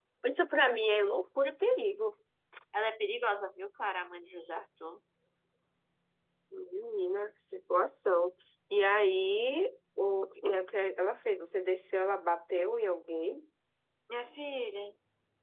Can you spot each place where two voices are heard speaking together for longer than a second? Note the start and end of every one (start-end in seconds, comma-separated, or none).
none